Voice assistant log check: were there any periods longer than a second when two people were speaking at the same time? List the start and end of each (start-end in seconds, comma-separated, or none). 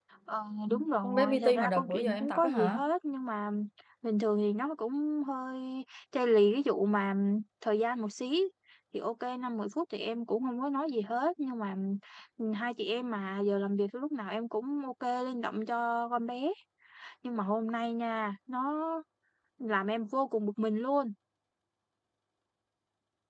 1.0-2.8